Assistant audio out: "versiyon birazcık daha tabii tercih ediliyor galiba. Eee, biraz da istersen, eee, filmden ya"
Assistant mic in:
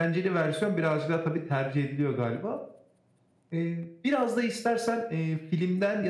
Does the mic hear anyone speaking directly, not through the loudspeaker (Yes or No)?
No